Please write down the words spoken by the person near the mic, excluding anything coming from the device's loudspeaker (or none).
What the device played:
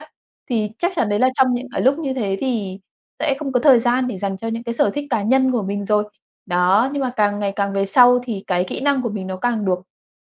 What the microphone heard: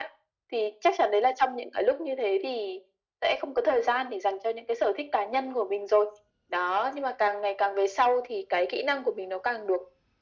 none